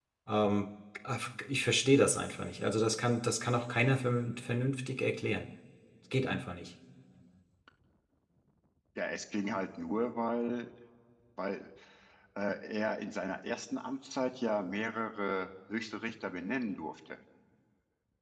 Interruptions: none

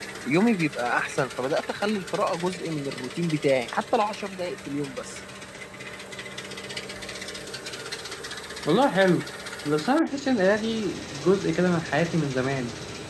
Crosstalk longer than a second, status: none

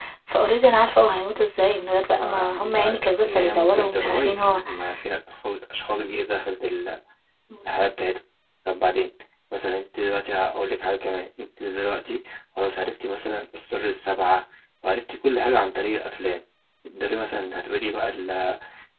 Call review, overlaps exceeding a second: present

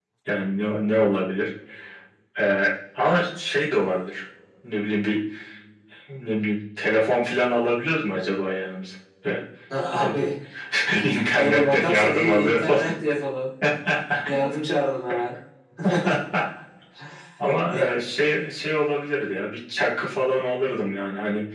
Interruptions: present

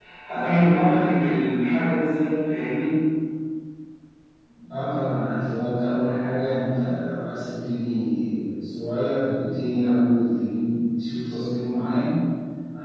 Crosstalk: none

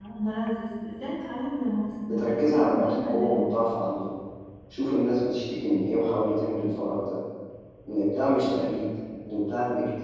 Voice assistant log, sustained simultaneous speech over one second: present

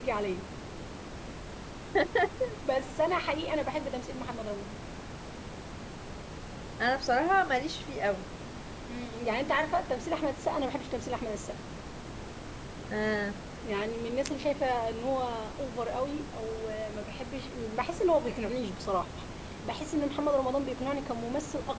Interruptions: none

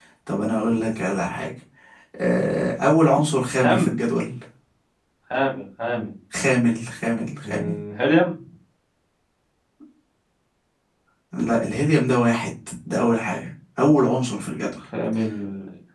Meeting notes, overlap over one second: none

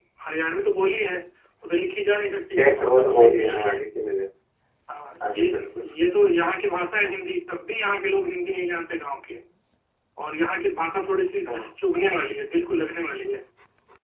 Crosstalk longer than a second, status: present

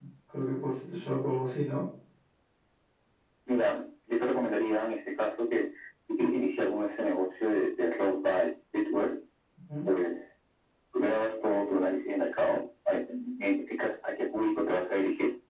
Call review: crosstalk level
none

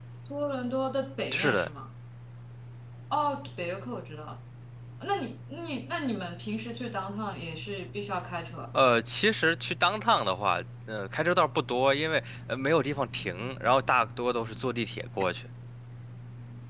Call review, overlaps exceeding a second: none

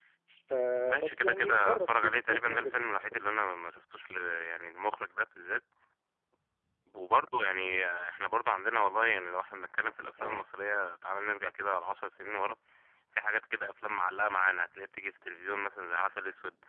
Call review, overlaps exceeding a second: present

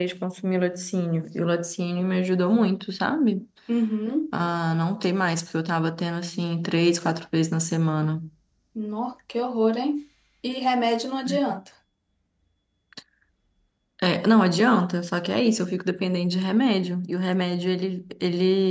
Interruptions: none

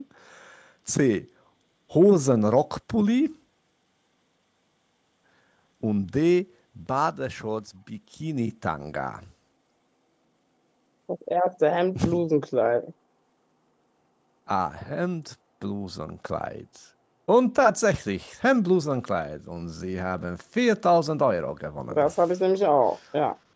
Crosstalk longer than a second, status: none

